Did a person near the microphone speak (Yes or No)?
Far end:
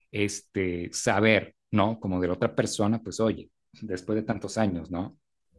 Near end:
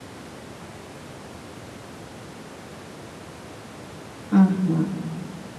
Yes